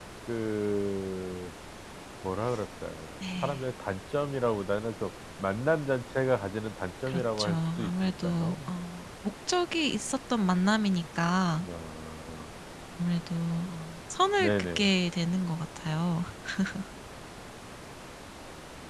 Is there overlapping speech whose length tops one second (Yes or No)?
Yes